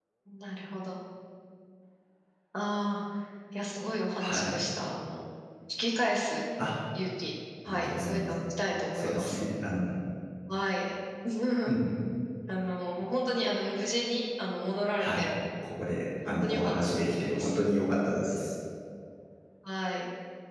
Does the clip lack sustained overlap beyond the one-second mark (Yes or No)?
No